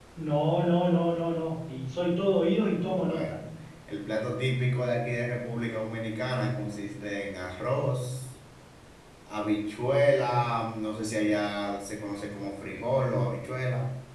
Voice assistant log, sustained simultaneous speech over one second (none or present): none